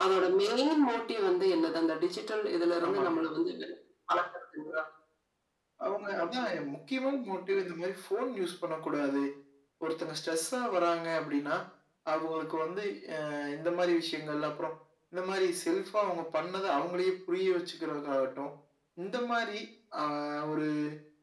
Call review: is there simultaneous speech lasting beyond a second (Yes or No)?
No